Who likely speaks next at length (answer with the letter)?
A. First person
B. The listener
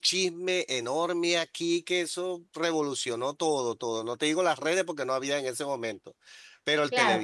B